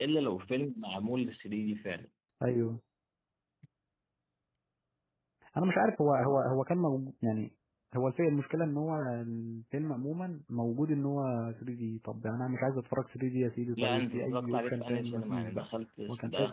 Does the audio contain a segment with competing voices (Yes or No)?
Yes